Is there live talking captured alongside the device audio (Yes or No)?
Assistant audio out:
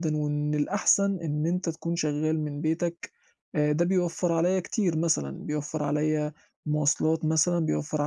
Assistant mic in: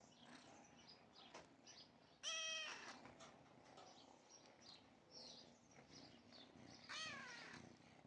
No